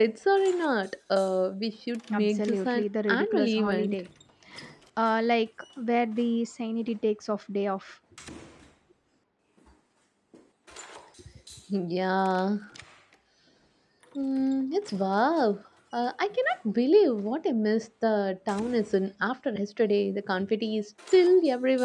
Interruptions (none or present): present